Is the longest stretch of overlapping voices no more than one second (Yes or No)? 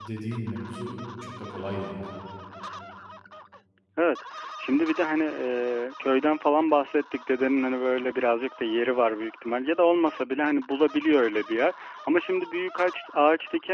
Yes